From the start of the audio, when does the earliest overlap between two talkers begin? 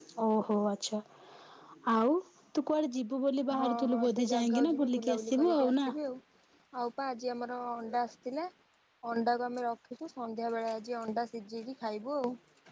3.5 s

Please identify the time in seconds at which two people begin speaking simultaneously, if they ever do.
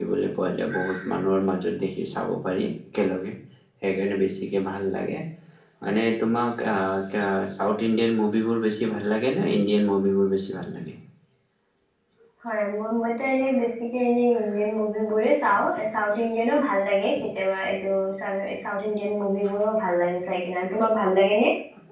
none

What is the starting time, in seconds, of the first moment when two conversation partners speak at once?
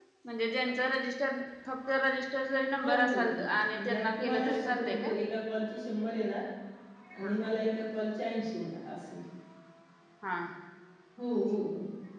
2.8 s

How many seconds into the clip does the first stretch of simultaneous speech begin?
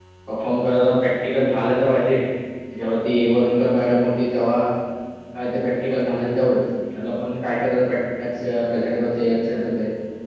none

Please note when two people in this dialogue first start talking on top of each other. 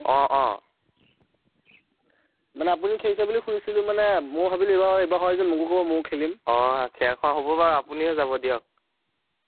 none

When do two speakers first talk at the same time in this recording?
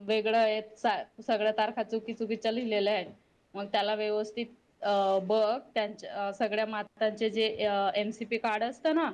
none

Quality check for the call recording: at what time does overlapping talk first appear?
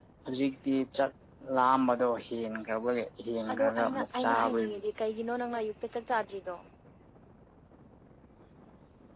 3.5 s

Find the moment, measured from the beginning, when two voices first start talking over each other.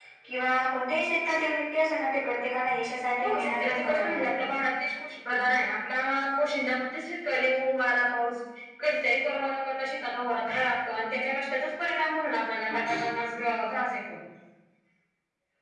3.2 s

